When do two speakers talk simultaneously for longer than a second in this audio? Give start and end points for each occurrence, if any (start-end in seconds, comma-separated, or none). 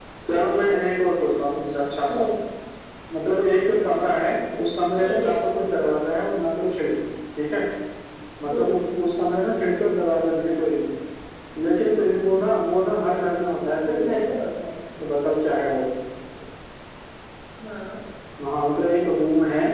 none